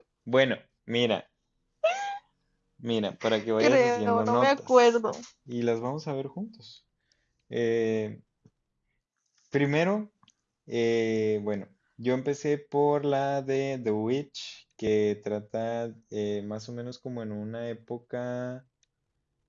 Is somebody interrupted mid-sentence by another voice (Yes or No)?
Yes